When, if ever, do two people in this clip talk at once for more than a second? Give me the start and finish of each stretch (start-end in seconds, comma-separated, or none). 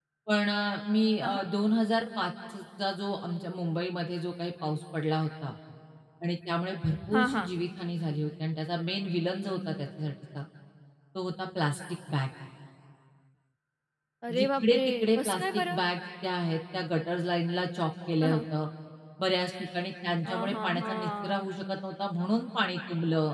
14.3-15.8, 20.2-21.5